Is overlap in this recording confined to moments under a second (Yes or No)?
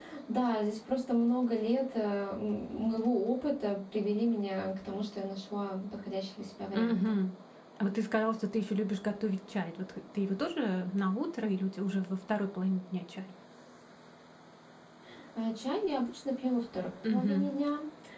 Yes